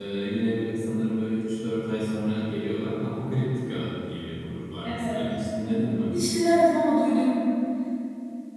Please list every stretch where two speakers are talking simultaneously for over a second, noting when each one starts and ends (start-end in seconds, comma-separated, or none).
none